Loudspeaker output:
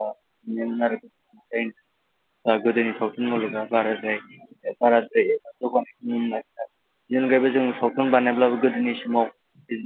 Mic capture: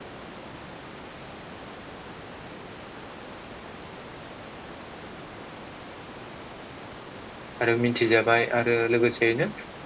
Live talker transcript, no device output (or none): आरो मिथिजाबाय आरो लोगोसेयैनो